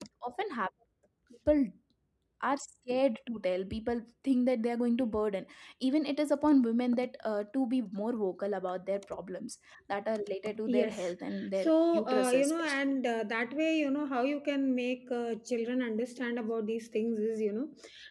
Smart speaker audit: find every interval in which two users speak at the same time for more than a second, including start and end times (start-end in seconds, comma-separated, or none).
11.6-13.0